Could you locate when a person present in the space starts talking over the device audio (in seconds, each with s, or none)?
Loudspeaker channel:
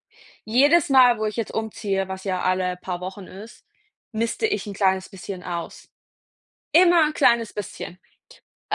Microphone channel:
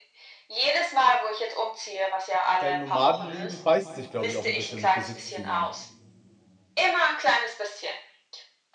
2.6 s